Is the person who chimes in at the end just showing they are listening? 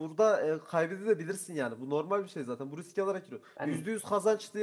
Yes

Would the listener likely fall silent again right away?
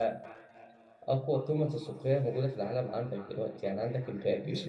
No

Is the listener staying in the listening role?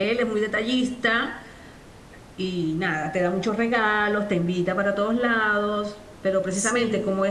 Yes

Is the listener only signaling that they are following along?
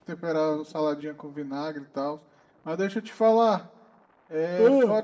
Yes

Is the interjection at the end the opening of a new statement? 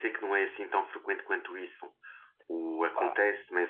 No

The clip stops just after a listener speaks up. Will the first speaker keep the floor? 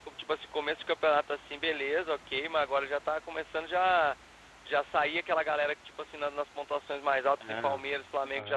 Yes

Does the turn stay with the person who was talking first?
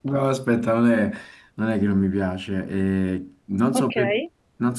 Yes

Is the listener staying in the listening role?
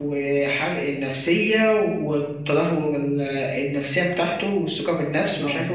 Yes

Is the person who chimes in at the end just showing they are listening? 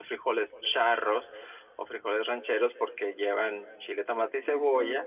Yes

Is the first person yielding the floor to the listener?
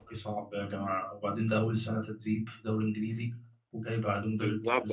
Yes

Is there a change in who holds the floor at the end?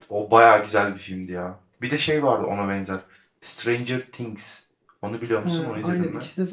Yes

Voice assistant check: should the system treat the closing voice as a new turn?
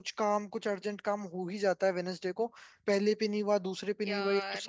No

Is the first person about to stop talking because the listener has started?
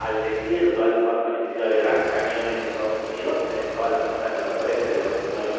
No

